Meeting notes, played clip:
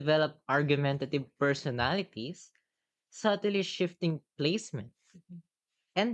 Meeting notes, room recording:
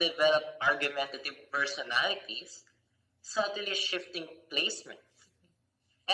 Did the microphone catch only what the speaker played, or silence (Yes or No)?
Yes